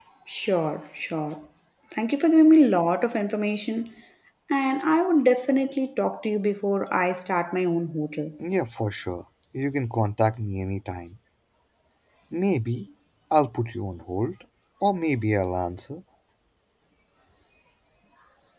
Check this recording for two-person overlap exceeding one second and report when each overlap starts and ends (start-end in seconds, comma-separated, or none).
none